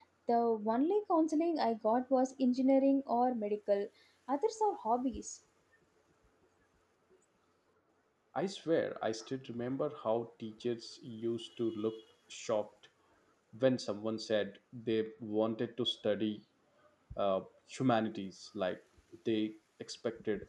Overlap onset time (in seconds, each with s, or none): none